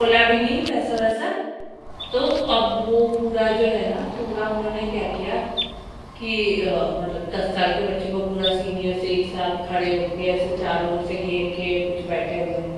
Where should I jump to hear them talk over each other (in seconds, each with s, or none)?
none